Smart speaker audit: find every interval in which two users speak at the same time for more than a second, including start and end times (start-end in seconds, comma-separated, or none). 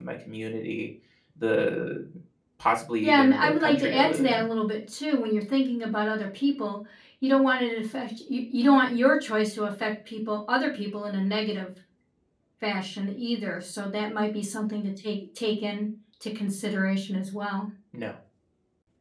3.0-4.5